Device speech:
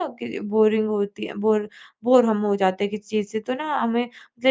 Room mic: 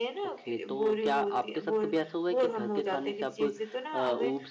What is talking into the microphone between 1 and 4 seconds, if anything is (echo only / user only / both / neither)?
both